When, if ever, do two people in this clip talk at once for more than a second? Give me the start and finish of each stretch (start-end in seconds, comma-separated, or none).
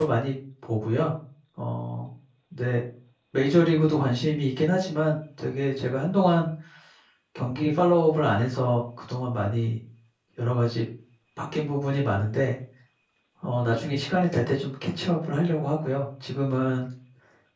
none